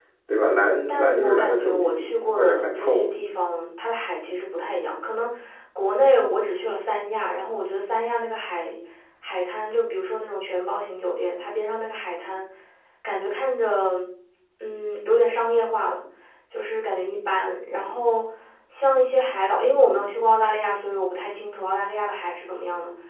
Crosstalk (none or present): present